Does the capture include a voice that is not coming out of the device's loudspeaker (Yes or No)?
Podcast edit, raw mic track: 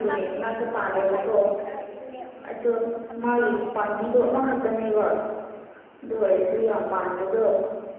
Yes